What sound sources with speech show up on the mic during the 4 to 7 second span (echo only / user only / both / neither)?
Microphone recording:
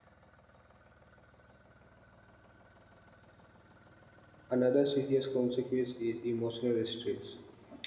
user only